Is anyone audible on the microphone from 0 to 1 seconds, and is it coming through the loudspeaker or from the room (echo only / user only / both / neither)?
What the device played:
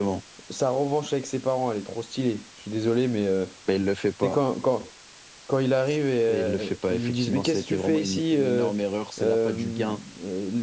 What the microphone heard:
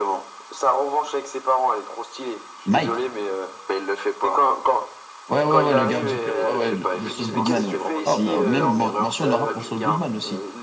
echo only